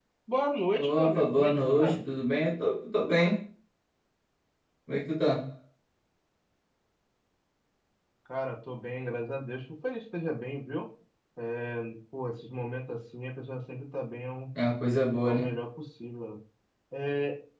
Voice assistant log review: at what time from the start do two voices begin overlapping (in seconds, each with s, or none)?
0.8 s